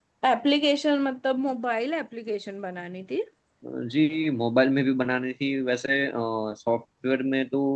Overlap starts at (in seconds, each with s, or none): none